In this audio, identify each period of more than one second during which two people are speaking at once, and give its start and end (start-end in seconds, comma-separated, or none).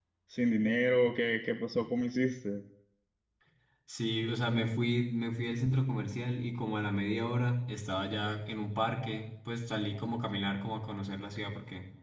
none